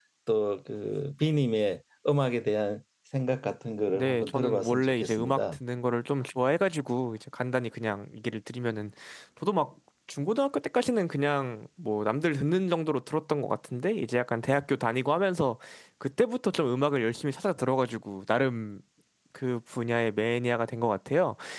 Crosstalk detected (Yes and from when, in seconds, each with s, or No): Yes, from 3.9 s